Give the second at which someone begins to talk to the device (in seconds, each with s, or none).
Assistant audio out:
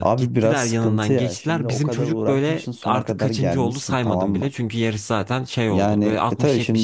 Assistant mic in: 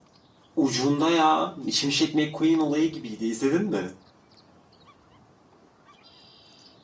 0.6 s